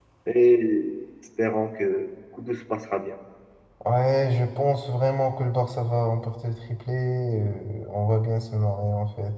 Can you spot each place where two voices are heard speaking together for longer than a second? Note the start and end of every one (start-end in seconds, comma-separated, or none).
none